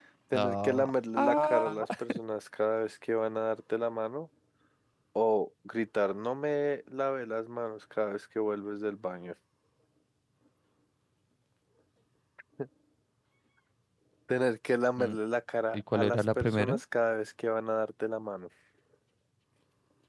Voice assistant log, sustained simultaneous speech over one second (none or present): present